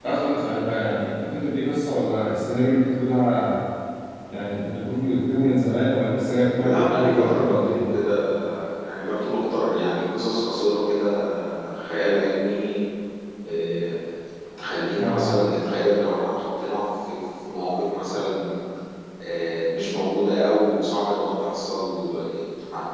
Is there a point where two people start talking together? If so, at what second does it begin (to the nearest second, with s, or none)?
7 s